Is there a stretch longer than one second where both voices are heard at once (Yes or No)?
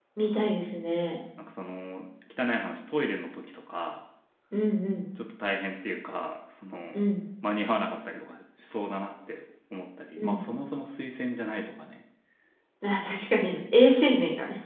No